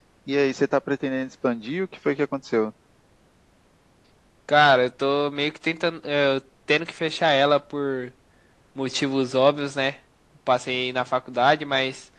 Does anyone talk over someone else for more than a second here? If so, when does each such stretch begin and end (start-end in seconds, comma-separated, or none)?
none